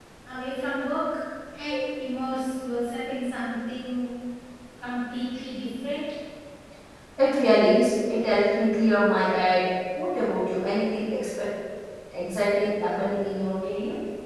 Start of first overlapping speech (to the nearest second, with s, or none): none